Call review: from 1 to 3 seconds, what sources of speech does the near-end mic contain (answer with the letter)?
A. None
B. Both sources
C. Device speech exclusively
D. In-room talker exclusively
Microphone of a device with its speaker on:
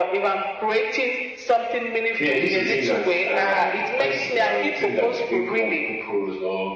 C